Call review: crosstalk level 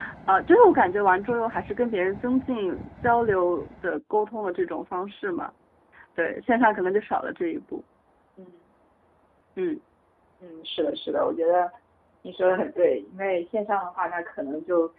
none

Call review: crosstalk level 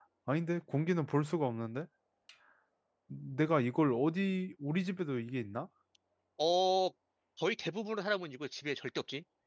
none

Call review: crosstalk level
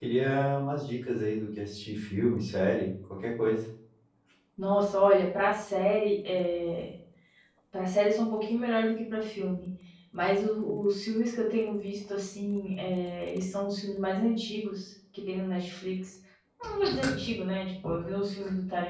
none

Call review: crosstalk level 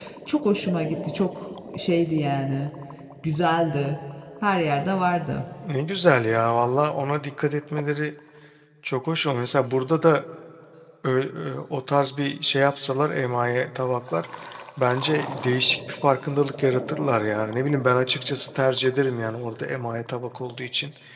none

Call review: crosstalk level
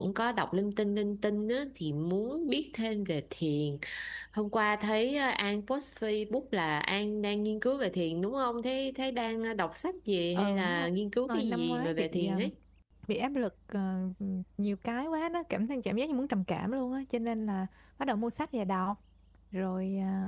present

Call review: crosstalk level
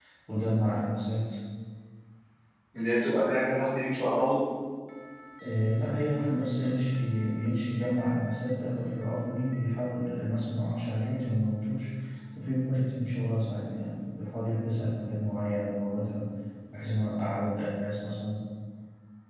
none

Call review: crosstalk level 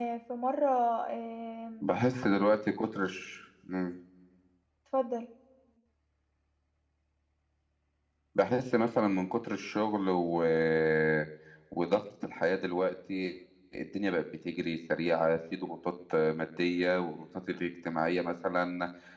none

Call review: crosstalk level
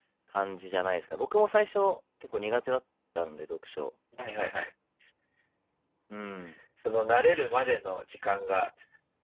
none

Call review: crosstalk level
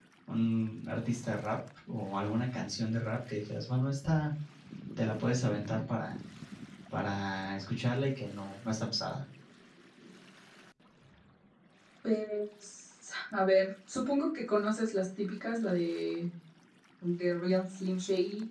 none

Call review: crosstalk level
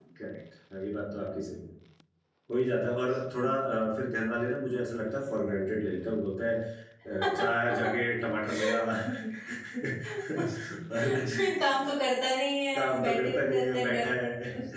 present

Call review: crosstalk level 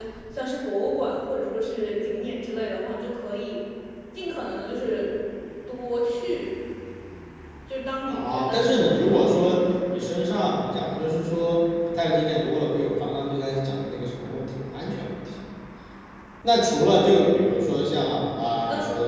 present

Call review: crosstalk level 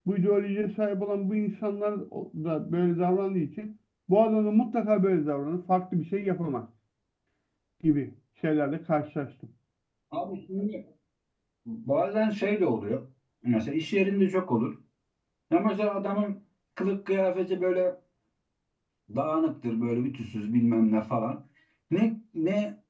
none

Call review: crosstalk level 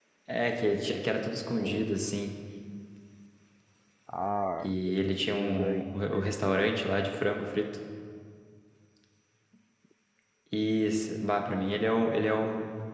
present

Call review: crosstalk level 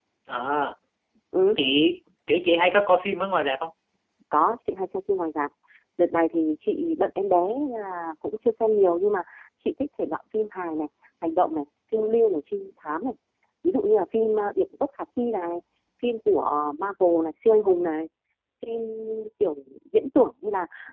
none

